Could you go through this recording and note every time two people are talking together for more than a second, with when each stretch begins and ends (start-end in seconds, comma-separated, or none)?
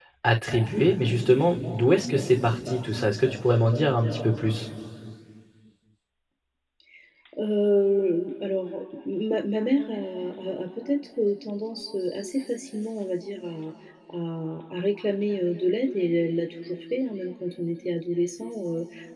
none